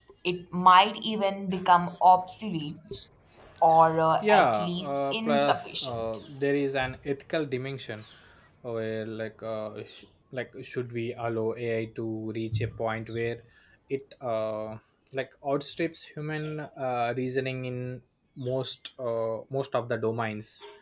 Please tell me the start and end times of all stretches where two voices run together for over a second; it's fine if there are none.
4.2-6.1

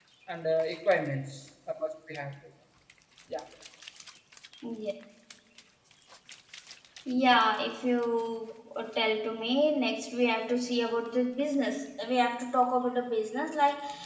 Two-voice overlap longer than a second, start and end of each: none

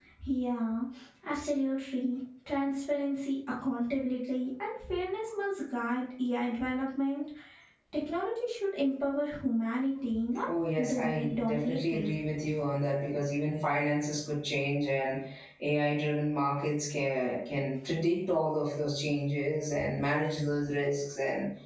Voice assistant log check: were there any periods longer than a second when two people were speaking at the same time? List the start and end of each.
10.8-12.1

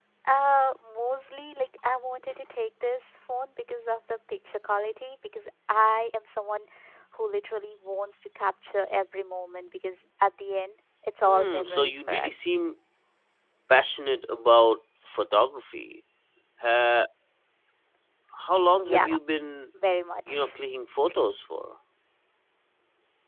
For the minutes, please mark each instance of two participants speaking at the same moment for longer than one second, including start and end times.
11.2-12.4

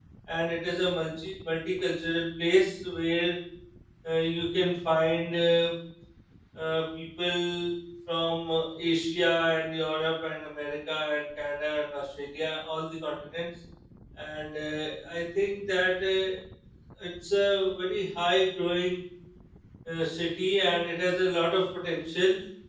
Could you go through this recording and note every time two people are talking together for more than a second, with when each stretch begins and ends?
none

